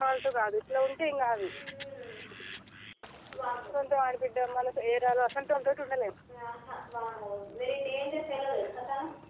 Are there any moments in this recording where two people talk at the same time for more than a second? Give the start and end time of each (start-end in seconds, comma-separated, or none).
none